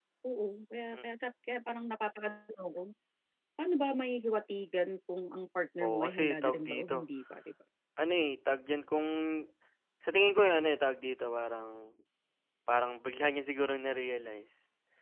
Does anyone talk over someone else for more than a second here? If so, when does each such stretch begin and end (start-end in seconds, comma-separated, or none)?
5.8-7.1